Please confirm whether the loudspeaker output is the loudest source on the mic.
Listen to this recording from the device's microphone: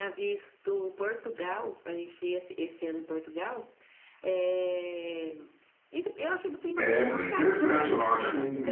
No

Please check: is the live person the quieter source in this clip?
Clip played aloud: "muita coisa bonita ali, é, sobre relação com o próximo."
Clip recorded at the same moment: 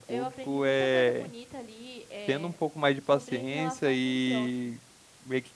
No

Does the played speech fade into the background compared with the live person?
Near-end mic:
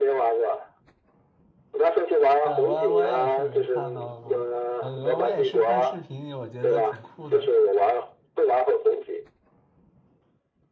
No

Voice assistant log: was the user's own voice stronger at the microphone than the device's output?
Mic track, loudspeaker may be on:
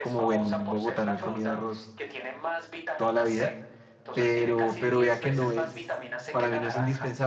Yes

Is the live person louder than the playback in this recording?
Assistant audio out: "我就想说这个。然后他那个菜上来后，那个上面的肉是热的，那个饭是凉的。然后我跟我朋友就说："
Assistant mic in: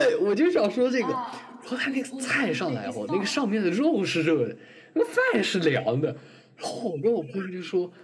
No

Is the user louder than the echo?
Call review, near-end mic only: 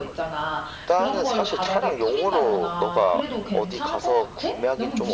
Yes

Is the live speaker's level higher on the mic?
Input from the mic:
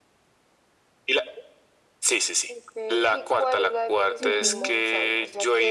No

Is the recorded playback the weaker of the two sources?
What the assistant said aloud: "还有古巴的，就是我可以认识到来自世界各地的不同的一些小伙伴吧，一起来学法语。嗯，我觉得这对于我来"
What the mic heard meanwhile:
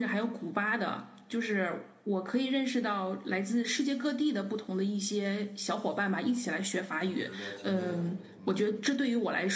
No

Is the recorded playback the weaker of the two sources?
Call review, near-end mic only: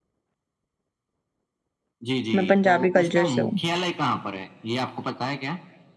Yes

